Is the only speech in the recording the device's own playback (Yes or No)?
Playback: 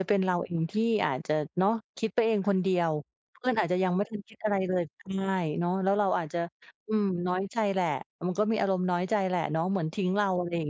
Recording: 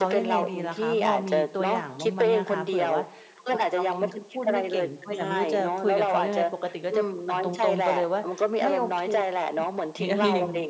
No